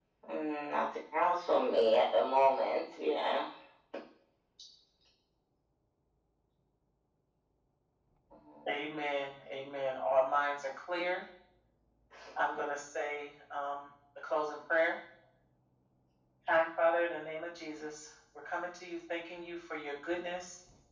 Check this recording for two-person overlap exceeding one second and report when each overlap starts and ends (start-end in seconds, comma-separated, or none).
none